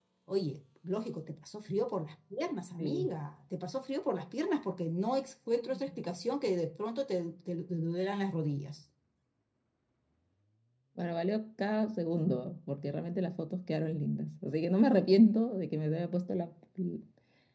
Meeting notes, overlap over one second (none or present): none